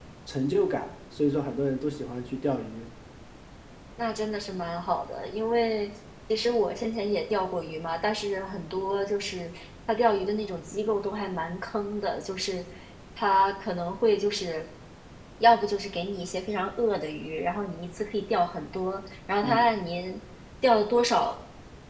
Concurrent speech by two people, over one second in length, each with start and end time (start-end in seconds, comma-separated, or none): none